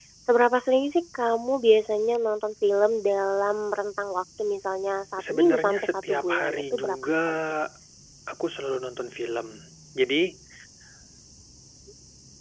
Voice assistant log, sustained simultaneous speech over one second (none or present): present